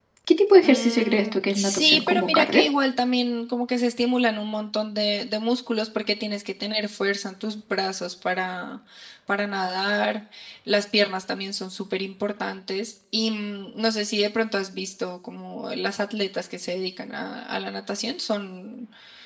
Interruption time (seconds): 0.6 s

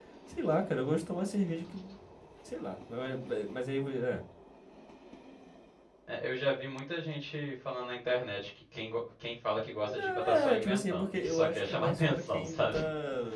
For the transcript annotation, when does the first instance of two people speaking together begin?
9.8 s

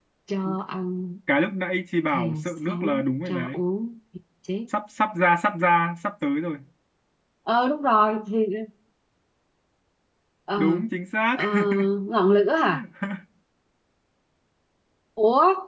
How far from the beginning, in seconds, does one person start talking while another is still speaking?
2.1 s

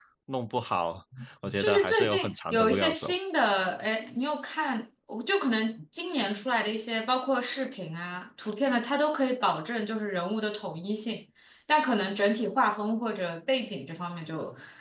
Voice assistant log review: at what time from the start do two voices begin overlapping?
1.6 s

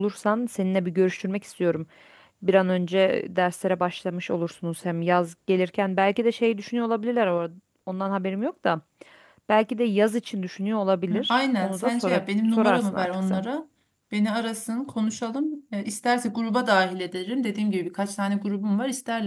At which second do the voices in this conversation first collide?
11.1 s

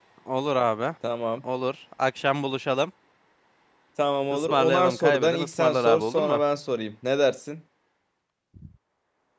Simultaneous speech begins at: 4.3 s

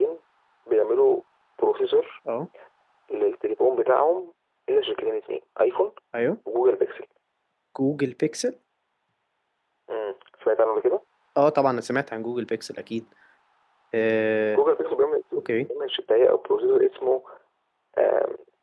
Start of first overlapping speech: none

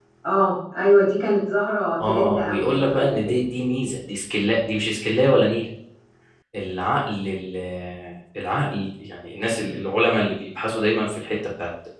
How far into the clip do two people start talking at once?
2.0 s

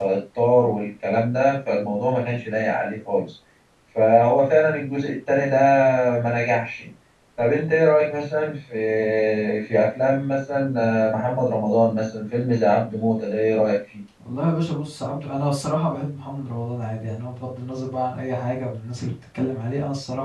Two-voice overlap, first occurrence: none

